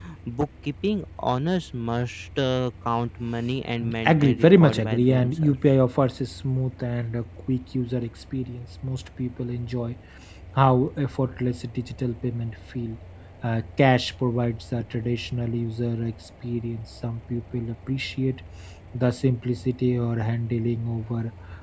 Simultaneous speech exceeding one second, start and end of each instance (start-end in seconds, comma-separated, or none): 4.0-5.6